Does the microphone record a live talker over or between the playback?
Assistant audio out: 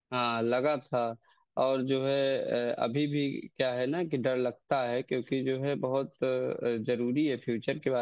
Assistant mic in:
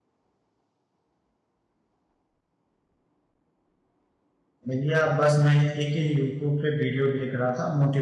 Yes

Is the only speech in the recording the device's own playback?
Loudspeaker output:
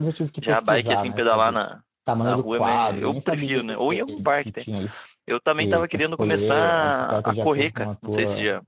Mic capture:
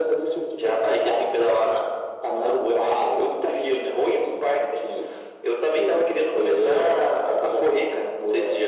Yes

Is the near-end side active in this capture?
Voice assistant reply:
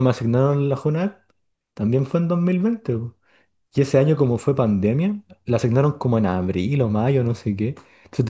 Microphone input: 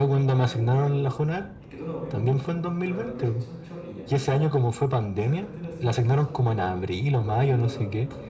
Yes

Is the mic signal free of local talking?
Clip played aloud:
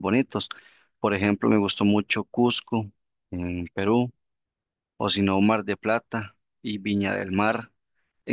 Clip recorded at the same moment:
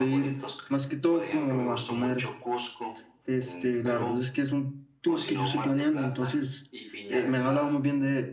No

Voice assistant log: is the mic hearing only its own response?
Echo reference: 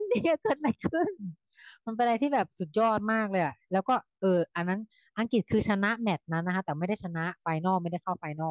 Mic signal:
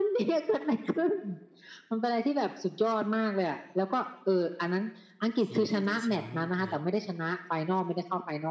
No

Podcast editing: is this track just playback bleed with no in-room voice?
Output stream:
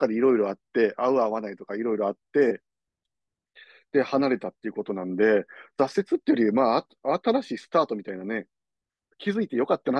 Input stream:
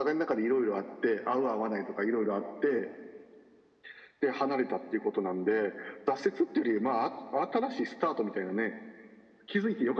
Yes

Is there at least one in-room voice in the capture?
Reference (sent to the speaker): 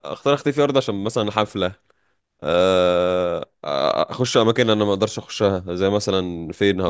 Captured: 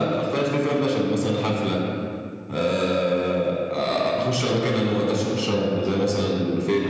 No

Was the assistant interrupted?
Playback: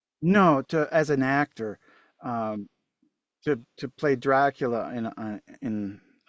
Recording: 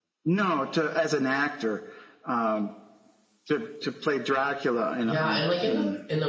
Yes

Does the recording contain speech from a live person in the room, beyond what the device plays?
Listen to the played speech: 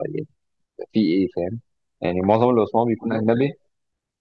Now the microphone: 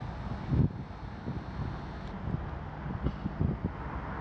No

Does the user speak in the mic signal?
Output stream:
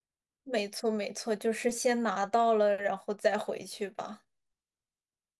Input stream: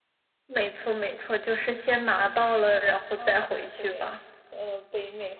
Yes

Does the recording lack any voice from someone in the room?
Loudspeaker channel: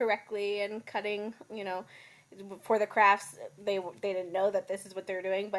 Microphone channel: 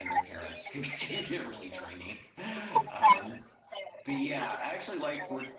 No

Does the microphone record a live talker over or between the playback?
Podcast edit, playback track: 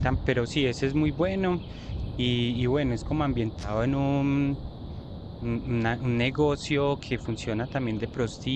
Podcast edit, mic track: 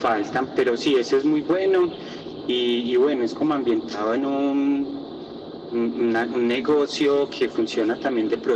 No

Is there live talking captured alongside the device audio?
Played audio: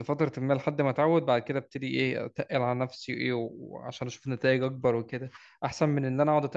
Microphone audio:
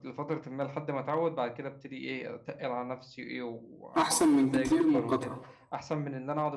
Yes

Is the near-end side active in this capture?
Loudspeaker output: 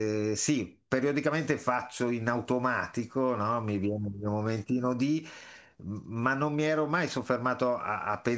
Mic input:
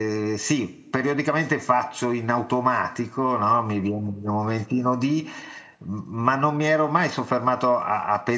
No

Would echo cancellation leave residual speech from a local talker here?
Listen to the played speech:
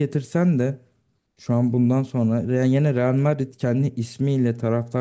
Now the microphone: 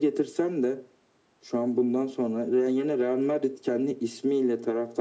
No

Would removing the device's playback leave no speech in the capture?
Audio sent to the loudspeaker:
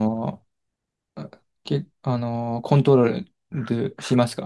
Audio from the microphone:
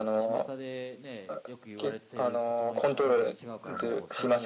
No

